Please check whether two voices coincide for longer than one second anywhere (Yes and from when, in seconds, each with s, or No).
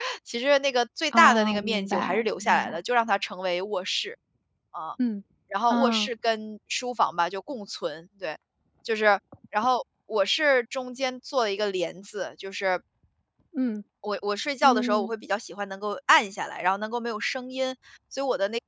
Yes, from 1.1 s